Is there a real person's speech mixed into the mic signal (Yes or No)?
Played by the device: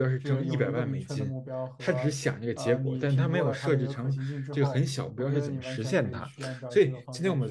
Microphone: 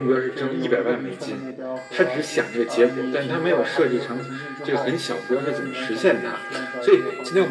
No